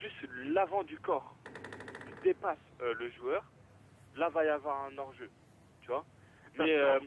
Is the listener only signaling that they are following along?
Yes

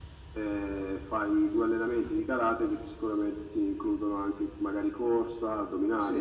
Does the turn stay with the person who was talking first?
No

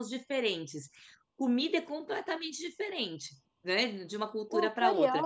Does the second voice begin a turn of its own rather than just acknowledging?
Yes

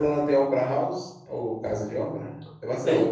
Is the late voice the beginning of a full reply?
Yes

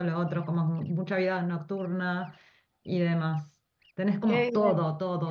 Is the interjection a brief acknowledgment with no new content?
Yes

